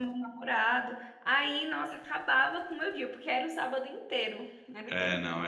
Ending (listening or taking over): taking over